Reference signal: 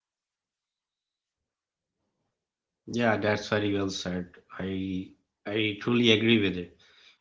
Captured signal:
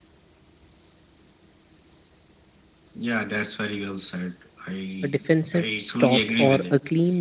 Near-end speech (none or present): present